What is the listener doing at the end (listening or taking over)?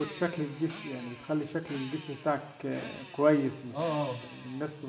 listening